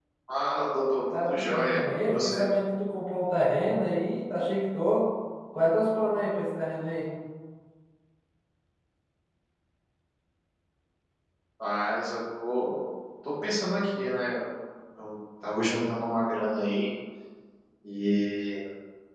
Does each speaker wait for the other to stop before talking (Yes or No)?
No